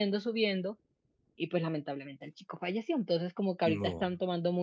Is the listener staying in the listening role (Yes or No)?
Yes